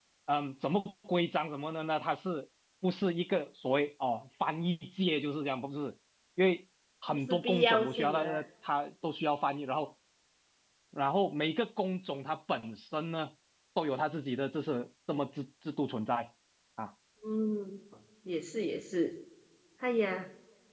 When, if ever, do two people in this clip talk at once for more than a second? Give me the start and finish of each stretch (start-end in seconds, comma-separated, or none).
7.1-8.4